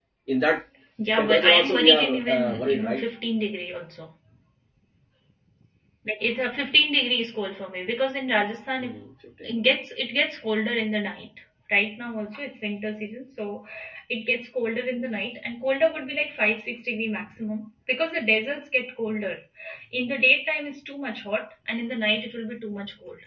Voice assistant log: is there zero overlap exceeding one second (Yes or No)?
No